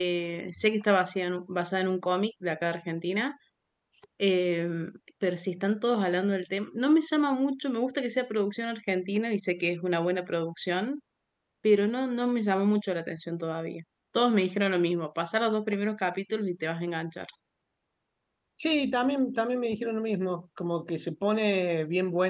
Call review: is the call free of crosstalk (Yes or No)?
Yes